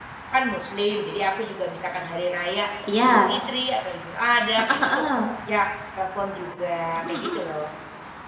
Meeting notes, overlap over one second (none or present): none